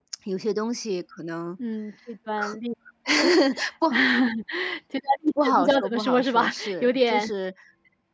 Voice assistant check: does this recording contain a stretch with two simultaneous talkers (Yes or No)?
Yes